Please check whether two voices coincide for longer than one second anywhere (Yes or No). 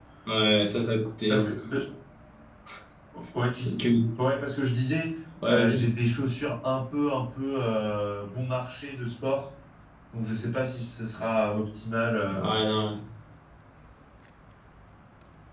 No